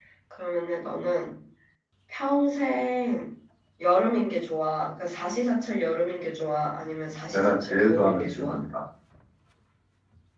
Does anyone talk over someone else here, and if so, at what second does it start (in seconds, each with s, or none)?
7.3 s